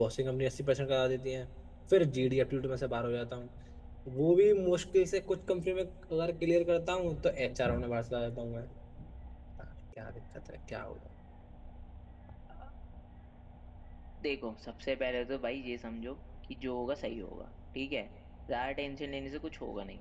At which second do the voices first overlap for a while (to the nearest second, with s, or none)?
none